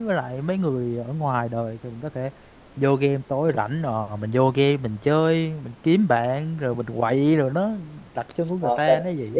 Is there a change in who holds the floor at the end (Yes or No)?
Yes